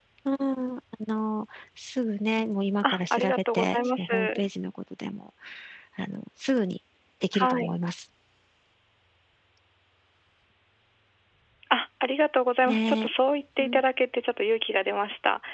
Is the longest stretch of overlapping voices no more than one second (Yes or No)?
No